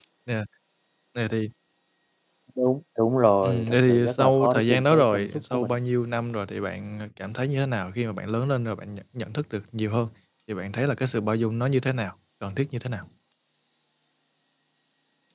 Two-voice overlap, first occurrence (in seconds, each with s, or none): 3.4 s